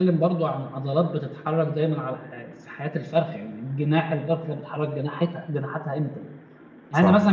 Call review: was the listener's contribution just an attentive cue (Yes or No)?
Yes